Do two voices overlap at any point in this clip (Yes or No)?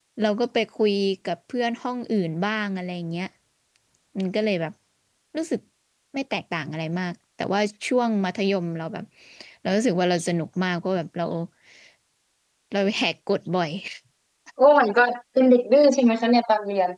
No